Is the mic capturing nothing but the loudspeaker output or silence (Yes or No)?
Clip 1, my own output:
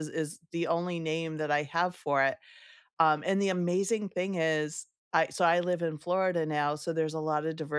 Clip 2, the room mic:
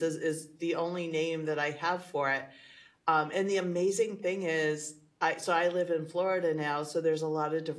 Yes